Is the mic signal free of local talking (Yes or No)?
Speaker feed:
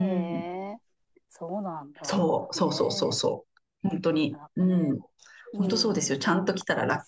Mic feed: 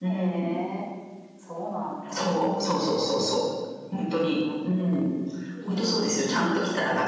Yes